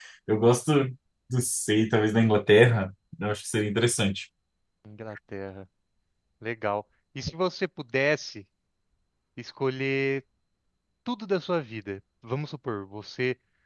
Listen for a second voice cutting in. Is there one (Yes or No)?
No